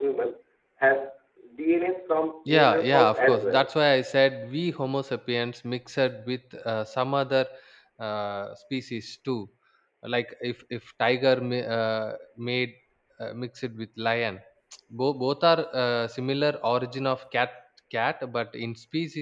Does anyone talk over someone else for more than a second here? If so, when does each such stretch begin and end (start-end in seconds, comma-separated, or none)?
2.5-3.7